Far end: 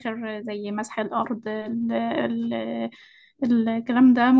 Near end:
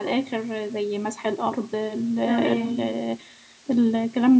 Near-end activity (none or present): present